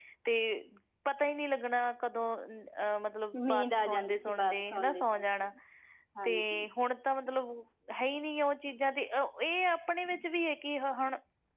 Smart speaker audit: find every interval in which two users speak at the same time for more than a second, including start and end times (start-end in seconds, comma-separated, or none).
3.5-5.2